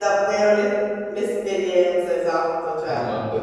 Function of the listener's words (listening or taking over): taking over